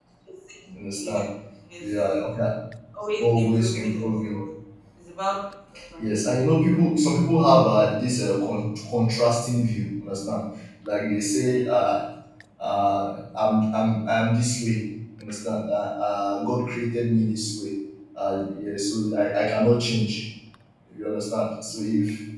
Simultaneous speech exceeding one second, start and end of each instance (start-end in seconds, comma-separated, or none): 3.2-4.4